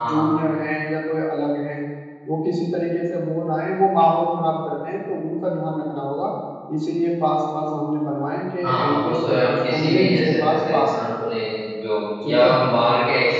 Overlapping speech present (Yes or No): Yes